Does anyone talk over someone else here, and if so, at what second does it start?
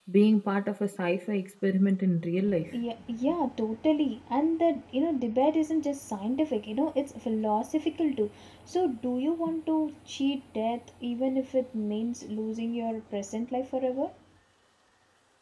none

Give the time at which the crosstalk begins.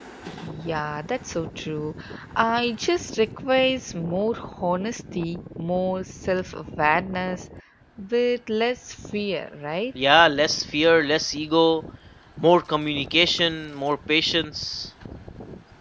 none

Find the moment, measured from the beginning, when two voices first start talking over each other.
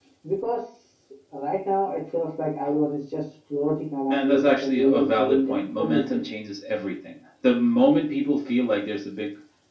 4.1 s

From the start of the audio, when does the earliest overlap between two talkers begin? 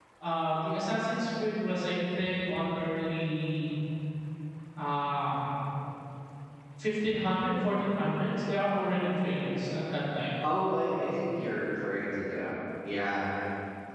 none

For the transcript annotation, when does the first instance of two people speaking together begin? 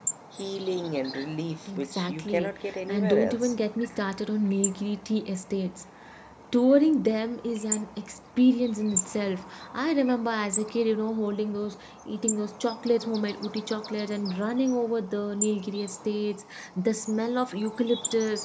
1.7 s

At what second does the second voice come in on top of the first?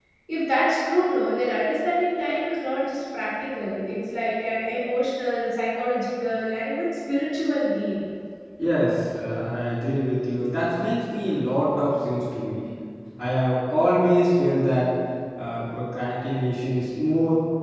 none

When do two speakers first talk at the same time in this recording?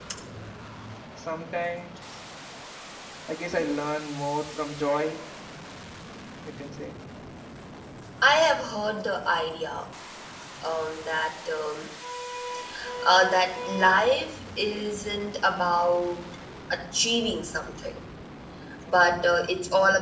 none

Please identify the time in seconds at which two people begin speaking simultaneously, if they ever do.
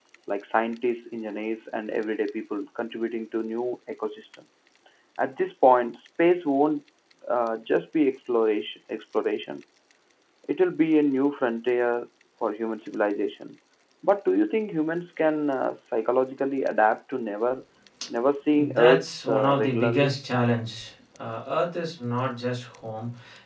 18.5 s

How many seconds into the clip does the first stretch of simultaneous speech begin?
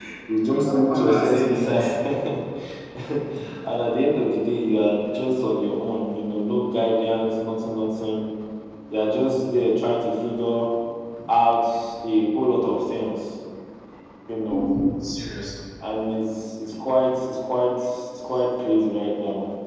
0.6 s

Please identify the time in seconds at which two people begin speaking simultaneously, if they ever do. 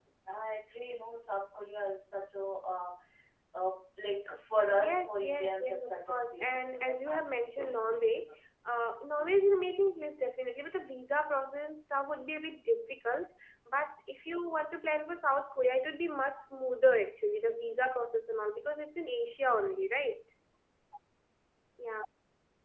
4.7 s

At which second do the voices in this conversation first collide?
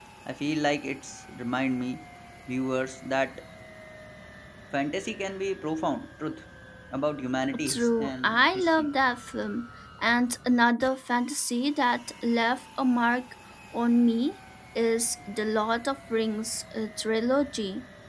7.6 s

